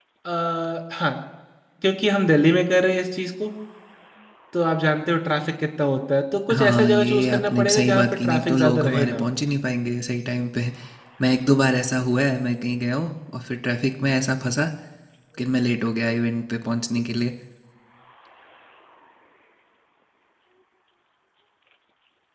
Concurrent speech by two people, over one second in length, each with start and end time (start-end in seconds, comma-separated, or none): 6.5-9.3